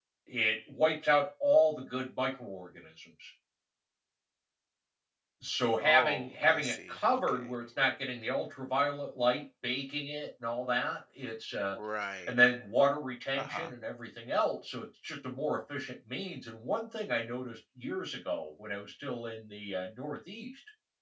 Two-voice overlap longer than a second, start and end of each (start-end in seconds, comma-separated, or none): 5.8-7.5